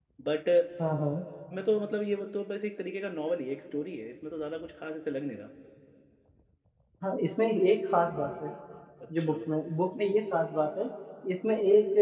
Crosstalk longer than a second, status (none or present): none